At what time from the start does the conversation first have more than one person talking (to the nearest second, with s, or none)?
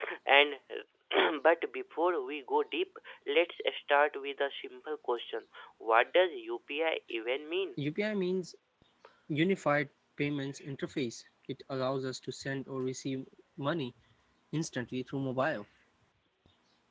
none